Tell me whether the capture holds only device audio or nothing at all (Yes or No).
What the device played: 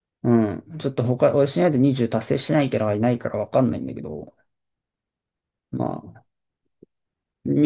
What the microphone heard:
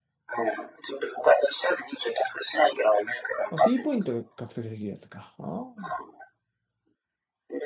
No